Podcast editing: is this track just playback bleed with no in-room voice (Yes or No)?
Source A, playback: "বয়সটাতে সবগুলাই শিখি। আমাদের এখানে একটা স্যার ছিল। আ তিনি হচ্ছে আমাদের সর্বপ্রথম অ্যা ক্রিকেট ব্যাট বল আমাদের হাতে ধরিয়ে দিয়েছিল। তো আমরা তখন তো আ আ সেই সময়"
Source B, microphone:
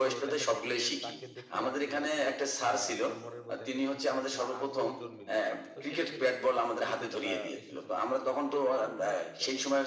No